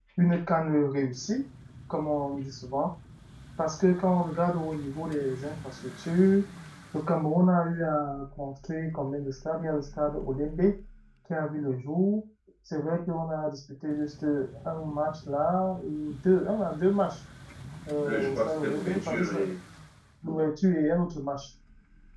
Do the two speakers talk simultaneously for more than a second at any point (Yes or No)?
Yes